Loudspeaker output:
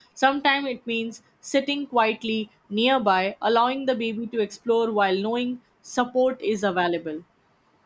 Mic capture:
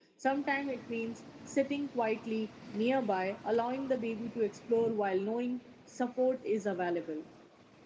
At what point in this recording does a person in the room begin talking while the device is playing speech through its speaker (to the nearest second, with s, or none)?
none